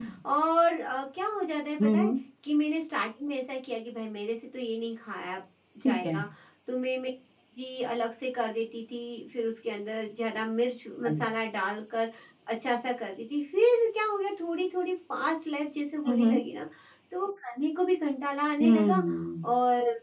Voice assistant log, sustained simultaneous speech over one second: none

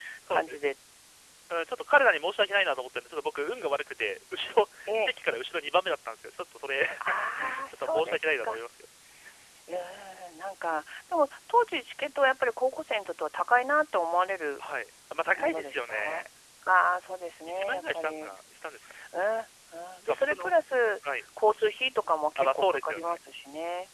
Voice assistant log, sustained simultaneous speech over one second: present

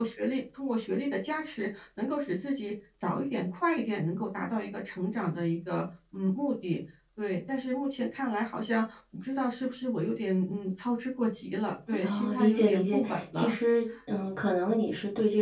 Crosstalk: present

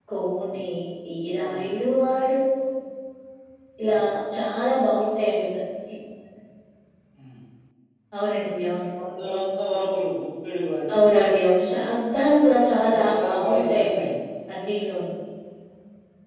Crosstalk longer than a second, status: present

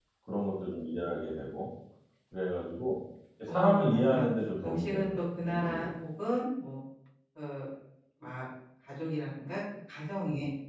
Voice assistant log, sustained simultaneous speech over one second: present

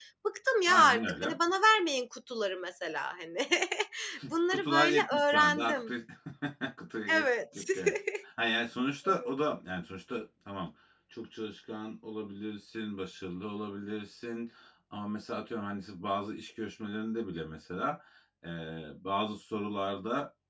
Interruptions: present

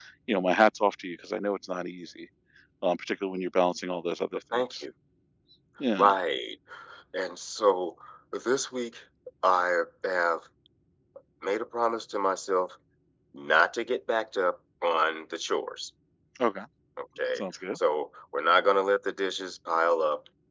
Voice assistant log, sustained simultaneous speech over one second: none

